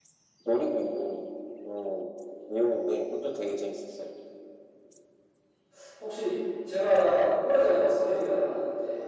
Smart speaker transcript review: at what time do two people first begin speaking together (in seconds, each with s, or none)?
none